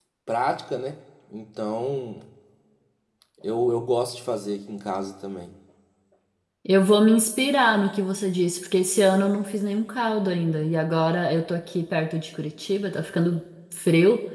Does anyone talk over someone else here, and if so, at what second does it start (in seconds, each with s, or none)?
none